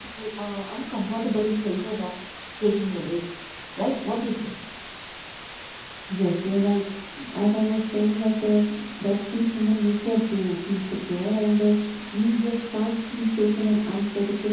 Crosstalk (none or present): none